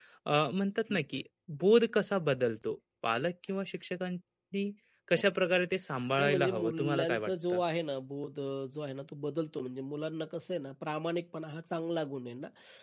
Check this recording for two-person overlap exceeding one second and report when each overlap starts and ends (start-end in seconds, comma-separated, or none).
6.2-7.6